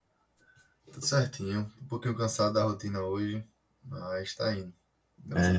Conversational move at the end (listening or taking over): taking over